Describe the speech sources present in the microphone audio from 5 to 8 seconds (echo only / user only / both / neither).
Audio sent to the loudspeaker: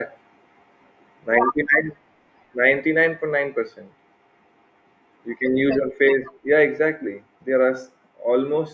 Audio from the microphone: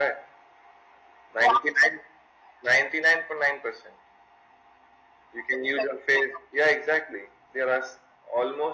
echo only